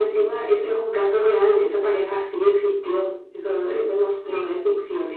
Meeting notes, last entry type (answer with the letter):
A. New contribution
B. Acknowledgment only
B